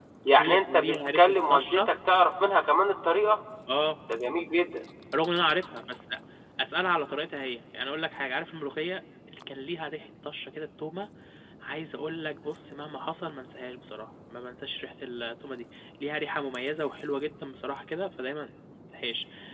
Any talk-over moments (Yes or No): Yes